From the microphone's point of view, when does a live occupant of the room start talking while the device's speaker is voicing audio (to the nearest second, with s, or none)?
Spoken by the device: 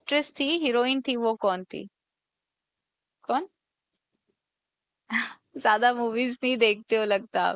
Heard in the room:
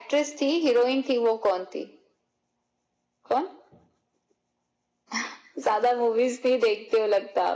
none